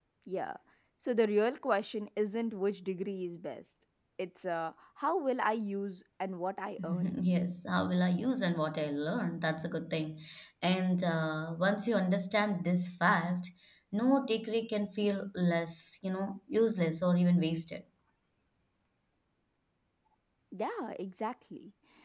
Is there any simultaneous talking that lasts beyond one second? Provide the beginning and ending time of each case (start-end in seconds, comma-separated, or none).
none